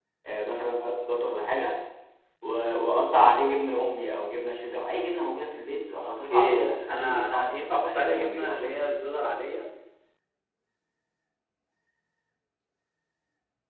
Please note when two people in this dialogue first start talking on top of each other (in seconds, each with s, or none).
6.0 s